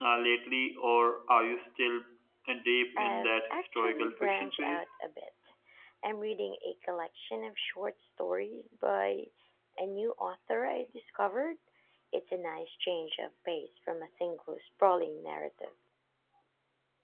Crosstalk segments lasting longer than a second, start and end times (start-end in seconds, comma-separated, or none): 3.0-4.8